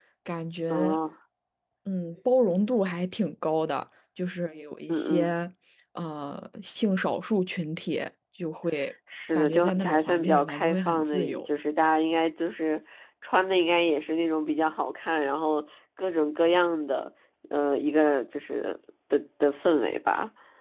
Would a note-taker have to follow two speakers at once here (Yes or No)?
Yes